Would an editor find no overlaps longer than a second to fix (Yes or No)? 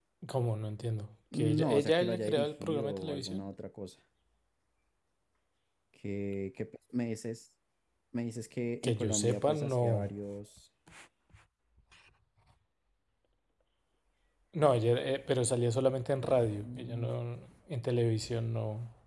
No